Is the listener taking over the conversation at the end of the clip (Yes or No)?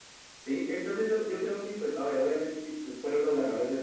Yes